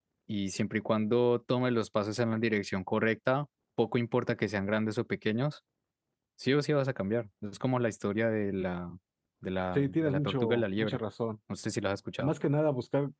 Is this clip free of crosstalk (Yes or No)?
No